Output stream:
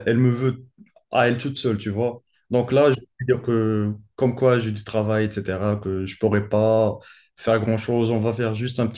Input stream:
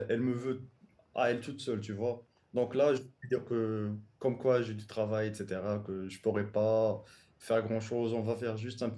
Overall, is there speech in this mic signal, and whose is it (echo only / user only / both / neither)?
echo only